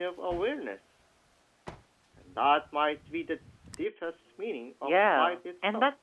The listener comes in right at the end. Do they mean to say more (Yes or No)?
Yes